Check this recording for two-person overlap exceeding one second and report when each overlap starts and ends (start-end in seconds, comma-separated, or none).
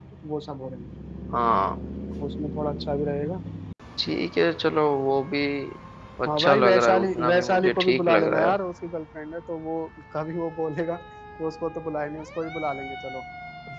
6.3-8.6